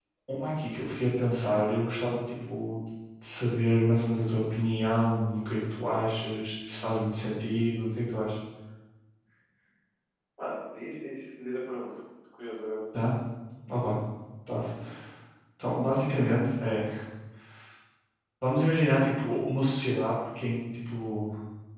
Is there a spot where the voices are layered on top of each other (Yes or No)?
No